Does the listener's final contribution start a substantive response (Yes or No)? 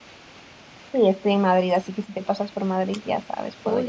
Yes